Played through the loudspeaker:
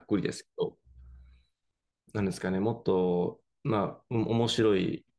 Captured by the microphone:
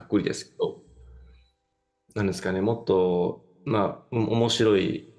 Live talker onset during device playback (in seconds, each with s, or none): none